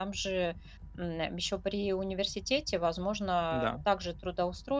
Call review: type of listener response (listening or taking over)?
listening